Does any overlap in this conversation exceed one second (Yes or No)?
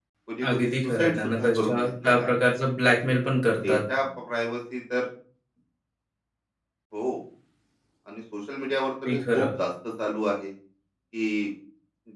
Yes